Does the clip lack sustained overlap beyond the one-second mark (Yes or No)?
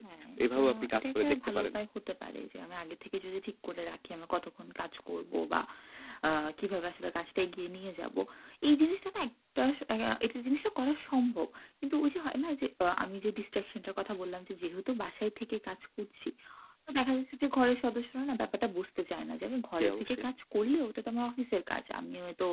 No